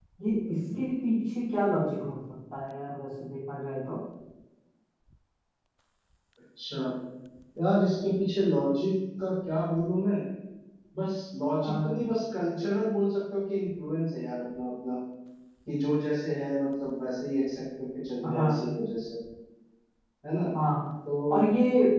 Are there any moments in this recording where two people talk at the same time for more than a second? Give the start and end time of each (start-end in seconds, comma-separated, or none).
none